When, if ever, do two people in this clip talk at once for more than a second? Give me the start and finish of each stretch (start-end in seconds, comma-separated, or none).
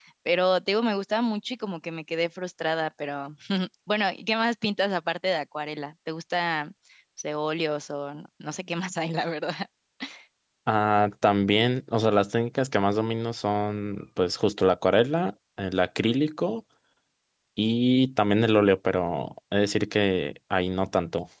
none